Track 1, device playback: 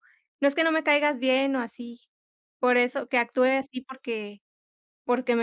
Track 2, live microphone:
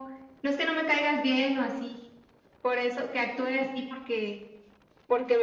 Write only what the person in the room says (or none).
none